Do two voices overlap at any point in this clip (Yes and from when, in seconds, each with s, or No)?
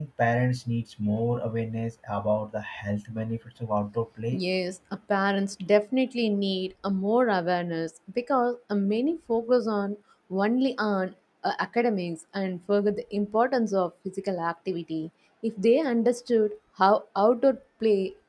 No